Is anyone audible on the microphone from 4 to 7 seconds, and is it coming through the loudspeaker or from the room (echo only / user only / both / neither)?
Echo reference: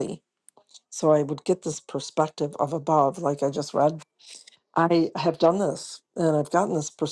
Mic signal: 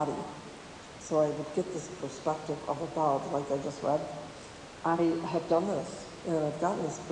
echo only